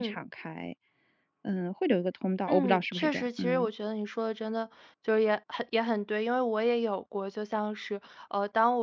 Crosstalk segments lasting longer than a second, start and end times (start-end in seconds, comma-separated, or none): 2.5-3.7